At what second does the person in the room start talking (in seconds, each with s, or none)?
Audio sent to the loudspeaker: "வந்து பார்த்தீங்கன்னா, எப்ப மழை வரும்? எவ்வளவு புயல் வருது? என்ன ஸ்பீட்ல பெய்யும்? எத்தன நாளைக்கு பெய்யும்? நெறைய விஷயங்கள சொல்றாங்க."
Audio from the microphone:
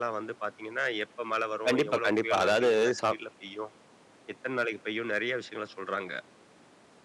1.7 s